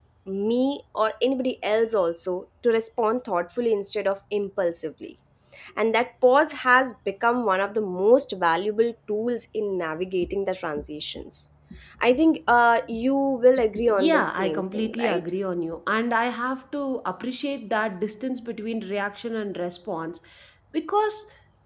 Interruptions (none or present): present